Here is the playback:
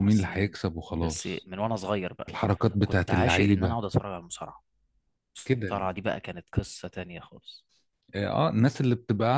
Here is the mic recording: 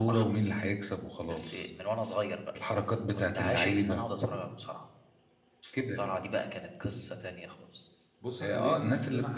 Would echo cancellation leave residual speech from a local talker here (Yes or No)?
Yes